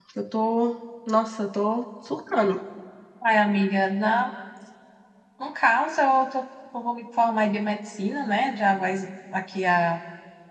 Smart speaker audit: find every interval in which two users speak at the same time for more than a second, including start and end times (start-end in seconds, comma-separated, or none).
none